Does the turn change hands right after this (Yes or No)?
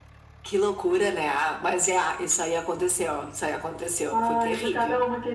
Yes